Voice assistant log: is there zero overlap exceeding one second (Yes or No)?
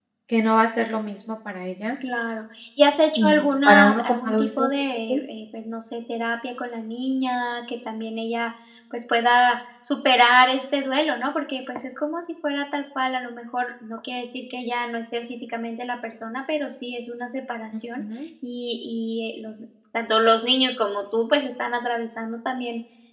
No